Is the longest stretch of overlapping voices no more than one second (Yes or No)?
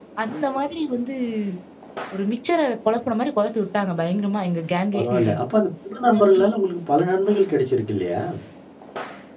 Yes